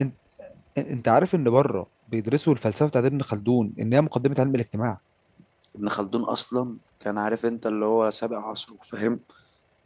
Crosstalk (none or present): none